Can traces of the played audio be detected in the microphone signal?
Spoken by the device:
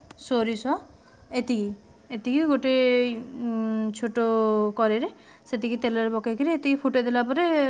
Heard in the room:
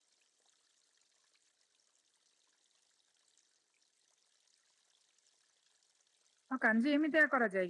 No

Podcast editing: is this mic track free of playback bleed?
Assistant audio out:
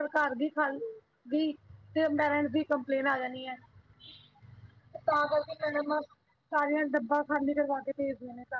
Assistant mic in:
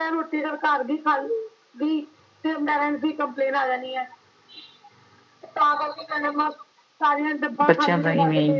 No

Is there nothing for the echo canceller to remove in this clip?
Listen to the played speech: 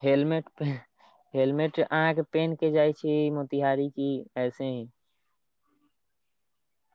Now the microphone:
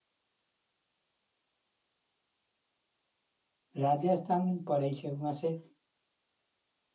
Yes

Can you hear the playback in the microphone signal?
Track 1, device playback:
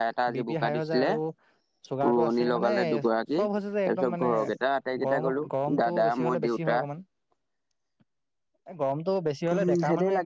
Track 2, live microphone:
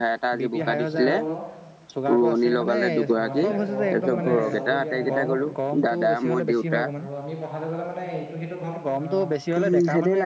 Yes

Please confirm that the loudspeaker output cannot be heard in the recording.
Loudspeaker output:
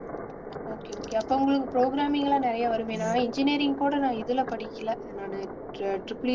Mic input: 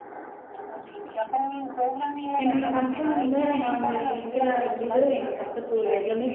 No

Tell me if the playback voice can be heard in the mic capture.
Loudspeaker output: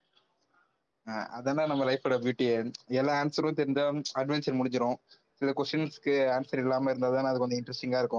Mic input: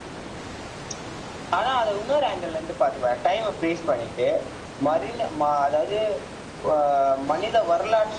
No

